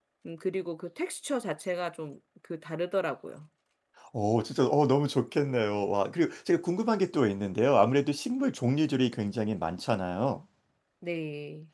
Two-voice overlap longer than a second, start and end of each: none

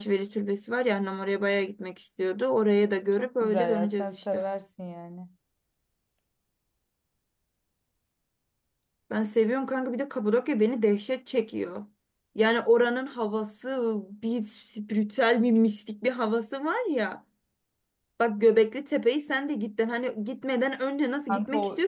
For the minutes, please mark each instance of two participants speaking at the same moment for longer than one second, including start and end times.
3.2-4.4

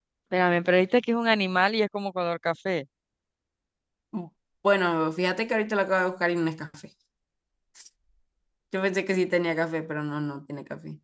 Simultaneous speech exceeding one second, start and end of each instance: none

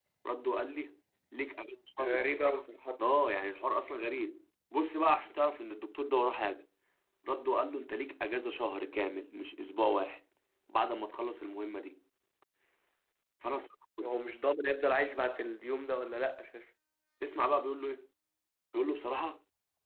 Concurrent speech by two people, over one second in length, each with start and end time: none

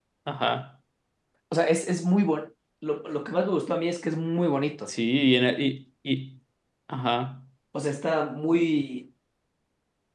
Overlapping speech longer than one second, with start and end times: none

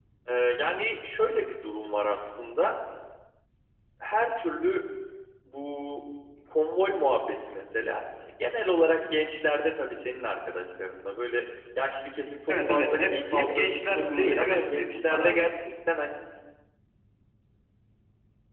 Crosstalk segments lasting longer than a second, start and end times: 12.5-15.4

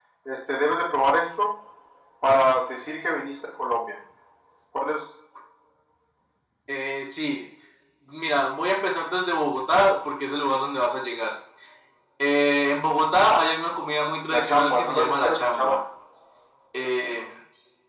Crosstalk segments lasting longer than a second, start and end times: 14.3-15.8

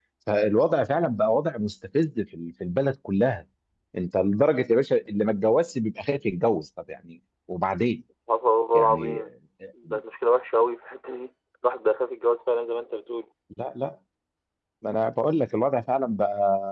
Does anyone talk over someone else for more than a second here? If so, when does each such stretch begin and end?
none

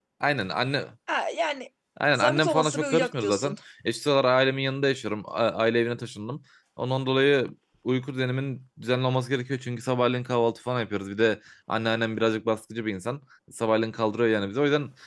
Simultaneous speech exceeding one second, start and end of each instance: 2.1-3.5

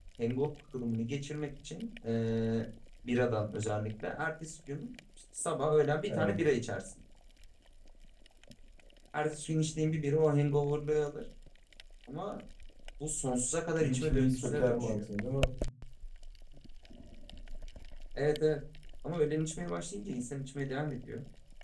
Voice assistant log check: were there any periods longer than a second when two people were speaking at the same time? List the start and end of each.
13.8-15.0

